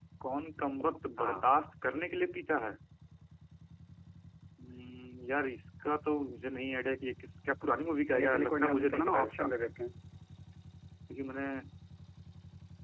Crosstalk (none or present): present